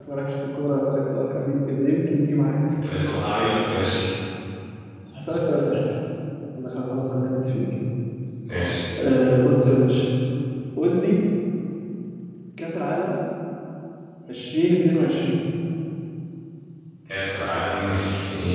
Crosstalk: none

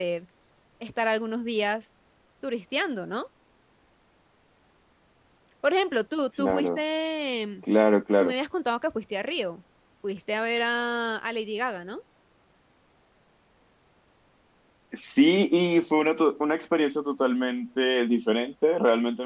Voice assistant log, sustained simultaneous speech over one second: none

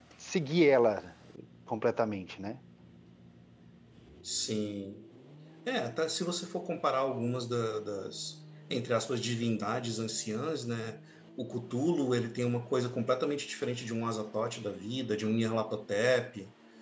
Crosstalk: none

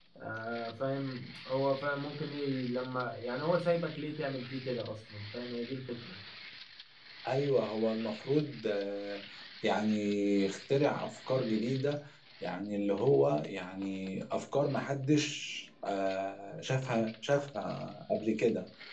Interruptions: none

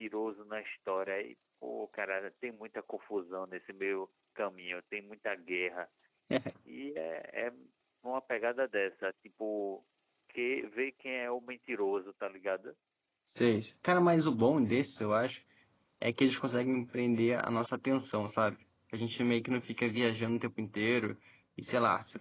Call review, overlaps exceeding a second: none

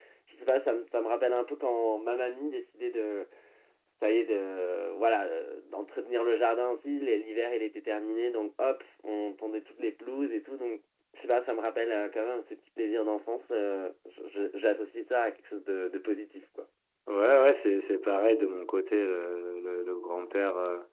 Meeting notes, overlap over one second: none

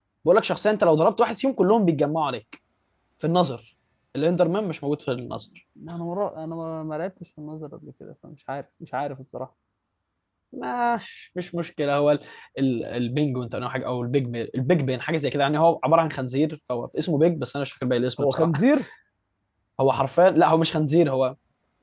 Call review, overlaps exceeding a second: none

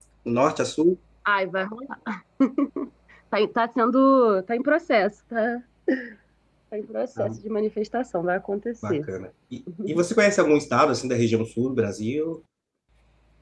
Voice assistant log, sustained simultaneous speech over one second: none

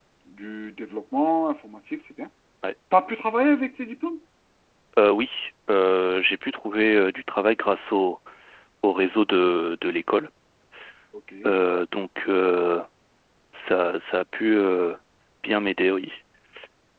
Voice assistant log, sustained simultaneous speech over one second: none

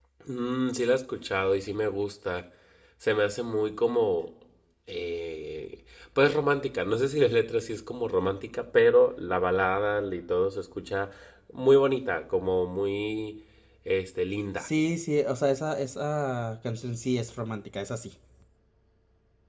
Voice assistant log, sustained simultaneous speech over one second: none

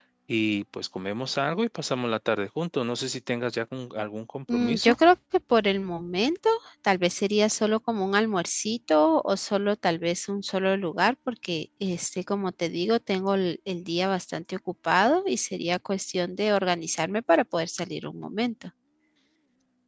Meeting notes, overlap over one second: none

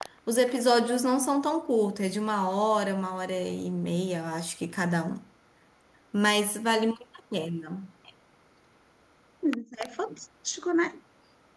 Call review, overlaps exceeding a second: none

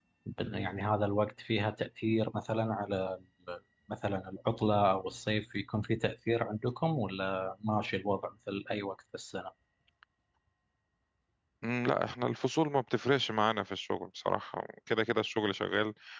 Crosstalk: none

